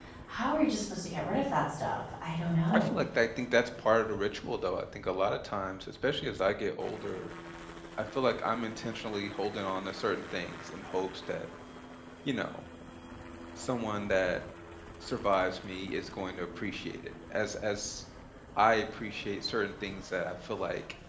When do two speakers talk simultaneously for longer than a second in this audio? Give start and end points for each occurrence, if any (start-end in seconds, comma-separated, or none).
none